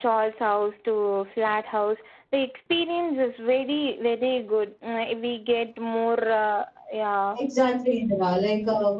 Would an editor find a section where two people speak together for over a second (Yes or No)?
No